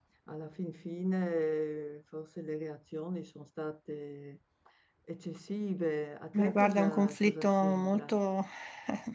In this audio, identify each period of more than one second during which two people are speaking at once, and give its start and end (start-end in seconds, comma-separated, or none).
6.3-8.2